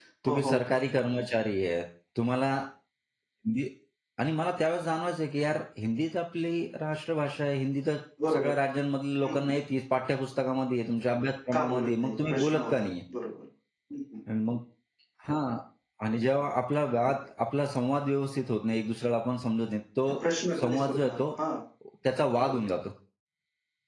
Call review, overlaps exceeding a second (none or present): present